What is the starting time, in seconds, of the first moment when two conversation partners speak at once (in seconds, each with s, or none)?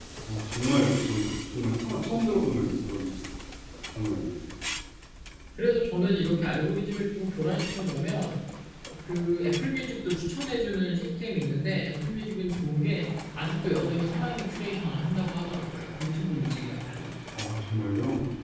none